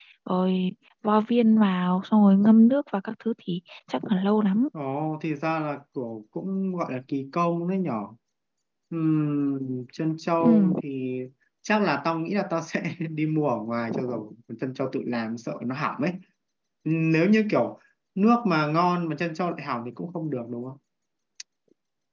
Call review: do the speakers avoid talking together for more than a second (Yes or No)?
Yes